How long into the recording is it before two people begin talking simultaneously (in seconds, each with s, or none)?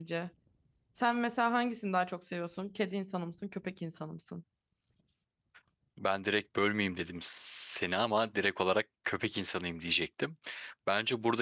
none